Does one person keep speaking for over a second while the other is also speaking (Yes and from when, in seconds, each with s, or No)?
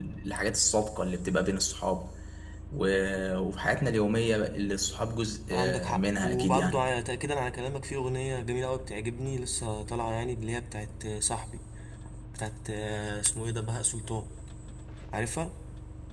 Yes, from 5.5 s